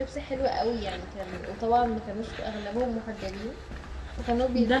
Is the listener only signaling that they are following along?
No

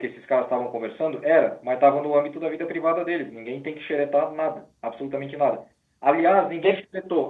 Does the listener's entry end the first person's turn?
No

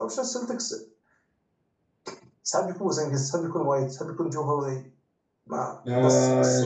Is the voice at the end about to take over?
Yes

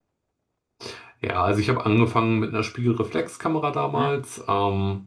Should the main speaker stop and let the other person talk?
No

